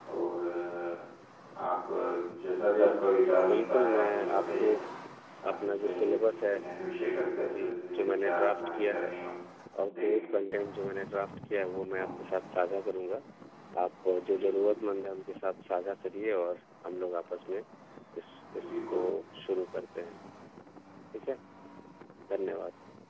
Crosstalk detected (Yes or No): Yes